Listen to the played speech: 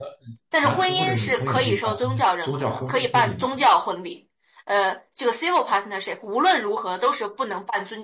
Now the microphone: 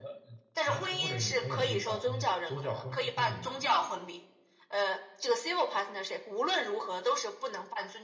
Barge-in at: none

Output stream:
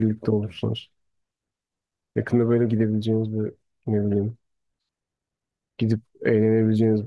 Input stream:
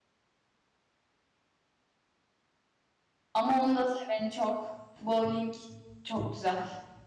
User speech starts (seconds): 3 s

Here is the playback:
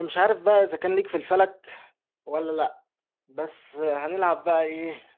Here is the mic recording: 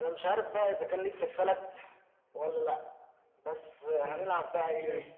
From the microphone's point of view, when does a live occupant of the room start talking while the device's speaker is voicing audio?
4 s

